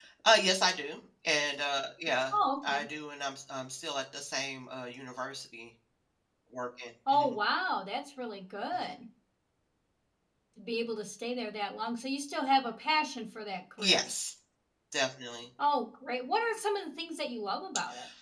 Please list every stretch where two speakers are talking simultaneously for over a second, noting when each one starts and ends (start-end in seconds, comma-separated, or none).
none